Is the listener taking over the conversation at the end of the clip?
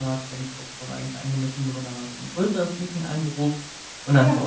No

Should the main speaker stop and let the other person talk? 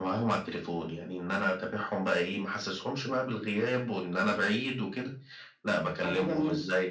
No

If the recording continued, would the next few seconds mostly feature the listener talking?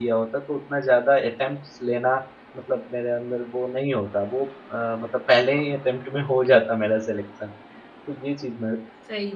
Yes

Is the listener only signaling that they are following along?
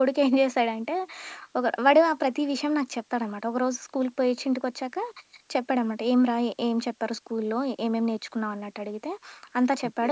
Yes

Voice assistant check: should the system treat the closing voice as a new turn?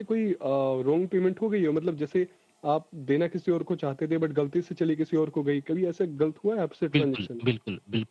Yes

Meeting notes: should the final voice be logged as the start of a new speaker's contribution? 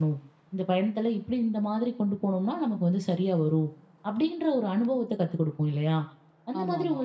No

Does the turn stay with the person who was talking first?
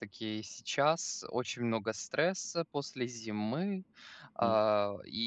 Yes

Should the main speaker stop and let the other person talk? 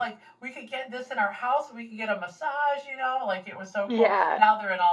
No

